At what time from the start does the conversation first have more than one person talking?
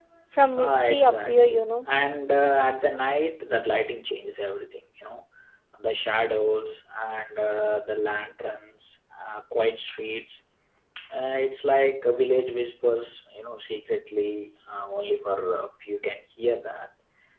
1 s

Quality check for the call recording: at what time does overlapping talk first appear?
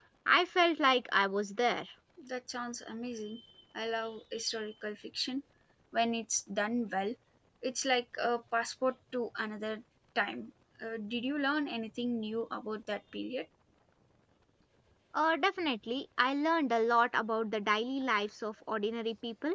none

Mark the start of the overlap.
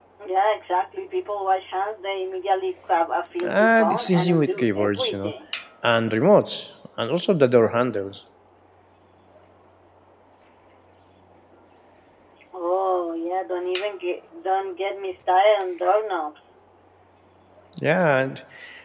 3 s

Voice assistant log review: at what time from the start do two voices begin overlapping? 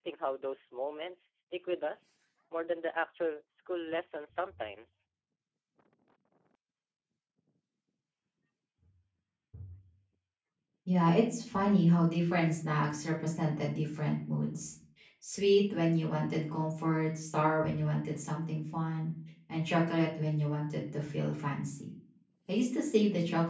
none

